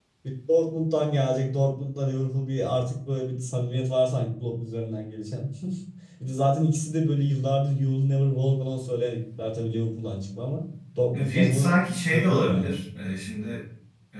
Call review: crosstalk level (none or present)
present